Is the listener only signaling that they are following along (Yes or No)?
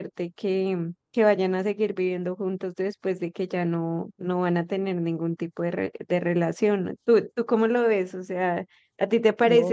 No